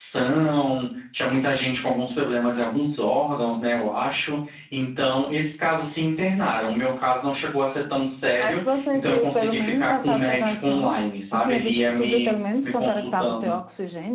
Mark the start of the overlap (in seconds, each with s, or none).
8.4 s